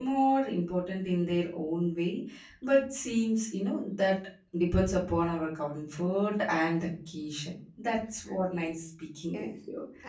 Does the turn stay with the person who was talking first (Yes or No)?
No